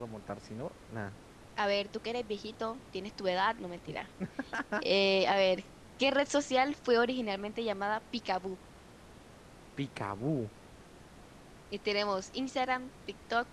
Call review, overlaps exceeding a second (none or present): none